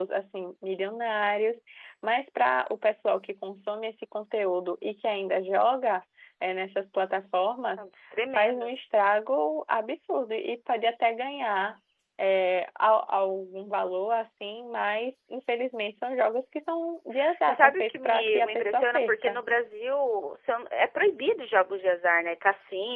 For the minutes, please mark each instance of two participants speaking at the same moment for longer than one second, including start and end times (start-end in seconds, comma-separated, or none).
17.5-19.4